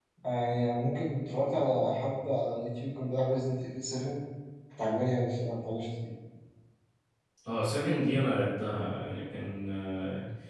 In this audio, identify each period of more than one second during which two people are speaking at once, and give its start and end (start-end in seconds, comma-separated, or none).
none